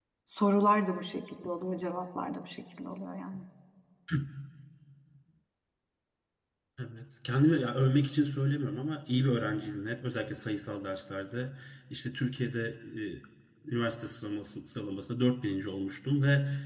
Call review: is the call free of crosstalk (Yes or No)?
Yes